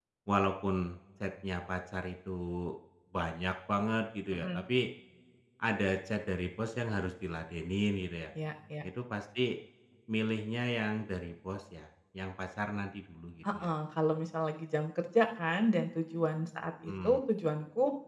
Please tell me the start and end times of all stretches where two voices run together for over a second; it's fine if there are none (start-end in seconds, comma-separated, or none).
none